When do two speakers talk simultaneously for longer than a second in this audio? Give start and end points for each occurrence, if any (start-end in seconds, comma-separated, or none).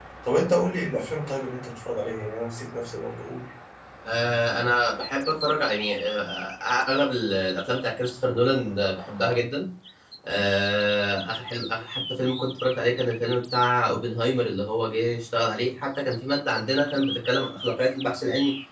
none